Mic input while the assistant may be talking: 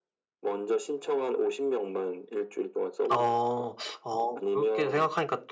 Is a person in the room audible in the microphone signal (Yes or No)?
Yes